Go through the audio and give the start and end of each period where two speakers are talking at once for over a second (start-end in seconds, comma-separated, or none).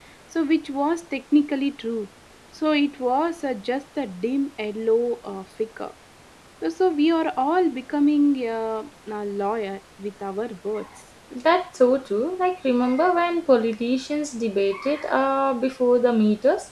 none